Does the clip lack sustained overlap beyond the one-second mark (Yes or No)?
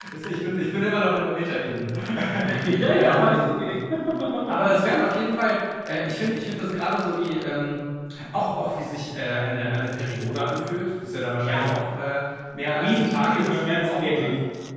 No